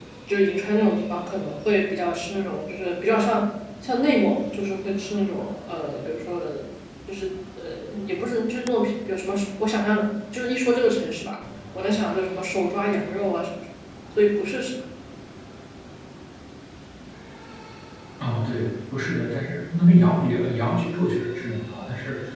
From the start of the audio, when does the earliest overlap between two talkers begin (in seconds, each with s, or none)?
none